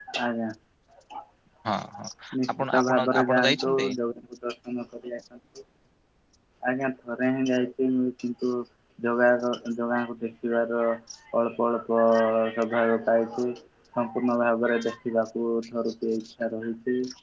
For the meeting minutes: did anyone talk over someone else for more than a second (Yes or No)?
Yes